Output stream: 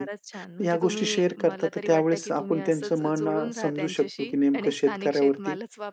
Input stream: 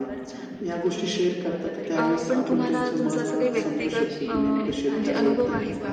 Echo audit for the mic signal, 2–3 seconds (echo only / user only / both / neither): both